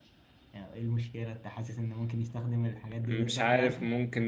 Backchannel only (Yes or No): No